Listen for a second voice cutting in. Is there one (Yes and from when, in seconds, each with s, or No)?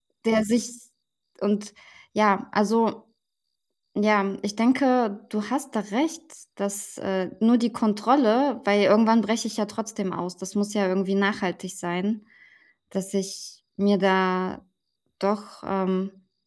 No